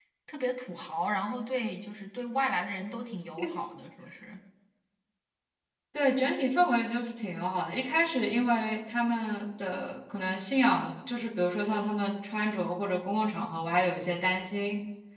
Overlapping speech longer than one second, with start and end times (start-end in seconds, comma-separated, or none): none